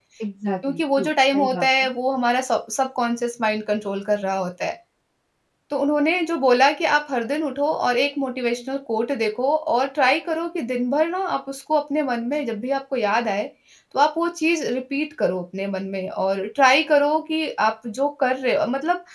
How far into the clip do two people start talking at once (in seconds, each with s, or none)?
0.7 s